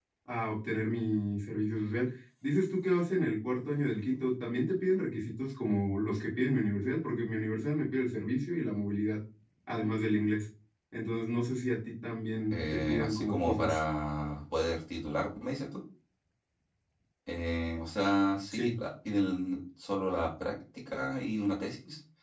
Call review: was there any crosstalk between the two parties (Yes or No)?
Yes